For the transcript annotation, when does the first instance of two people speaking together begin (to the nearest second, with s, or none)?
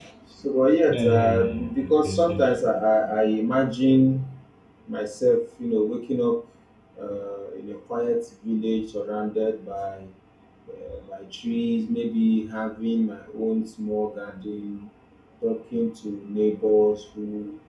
1 s